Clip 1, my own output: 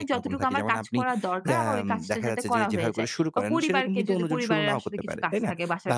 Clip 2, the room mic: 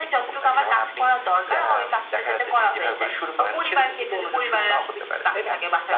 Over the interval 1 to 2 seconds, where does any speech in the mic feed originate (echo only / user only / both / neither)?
echo only